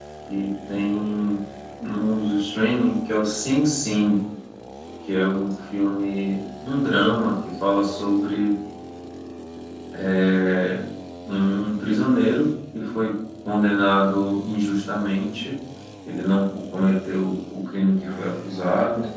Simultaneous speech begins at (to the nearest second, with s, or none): none